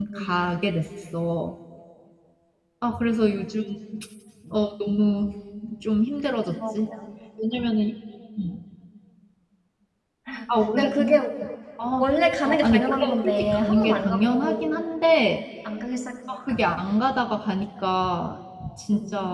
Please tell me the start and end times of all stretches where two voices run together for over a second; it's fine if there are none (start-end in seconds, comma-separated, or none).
12.0-14.7